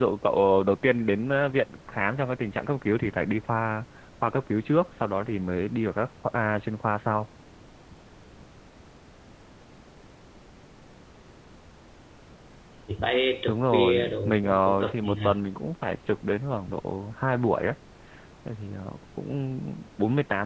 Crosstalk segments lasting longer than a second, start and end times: 13.5-15.2

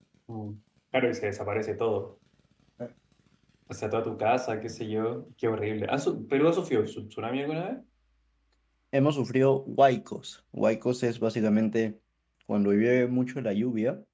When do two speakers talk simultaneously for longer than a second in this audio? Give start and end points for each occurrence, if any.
none

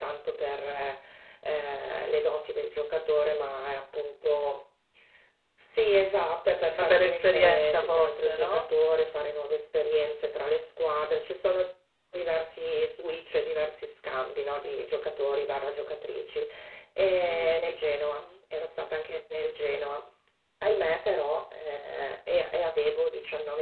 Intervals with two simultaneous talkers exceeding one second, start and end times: 6.7-8.7

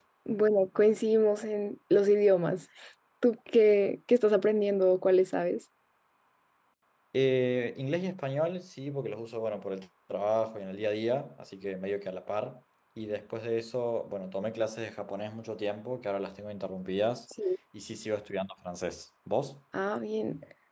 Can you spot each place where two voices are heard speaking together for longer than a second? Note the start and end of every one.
none

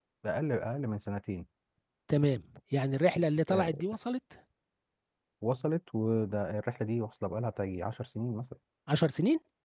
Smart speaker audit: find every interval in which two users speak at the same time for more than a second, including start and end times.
none

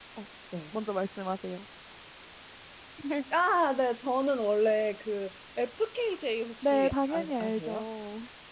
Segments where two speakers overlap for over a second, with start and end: 6.6-7.8

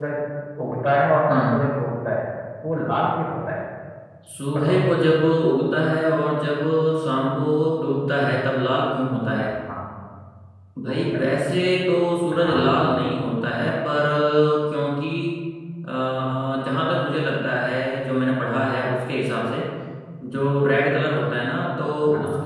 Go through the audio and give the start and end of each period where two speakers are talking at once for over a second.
none

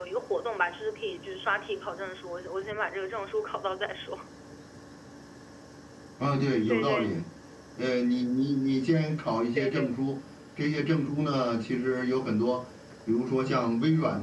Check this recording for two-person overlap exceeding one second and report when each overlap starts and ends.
none

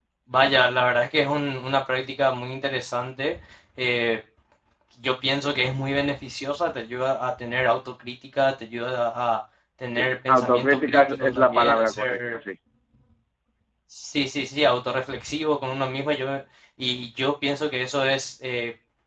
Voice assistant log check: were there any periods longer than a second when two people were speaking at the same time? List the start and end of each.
9.9-12.4

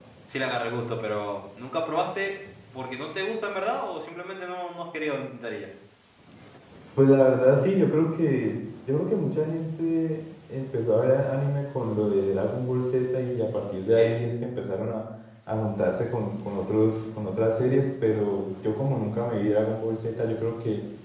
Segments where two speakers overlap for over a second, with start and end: none

